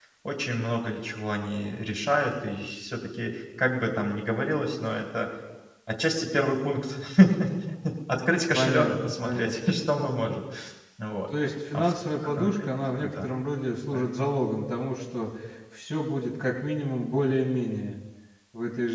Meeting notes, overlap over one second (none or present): present